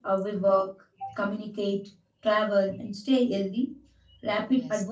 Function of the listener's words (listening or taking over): listening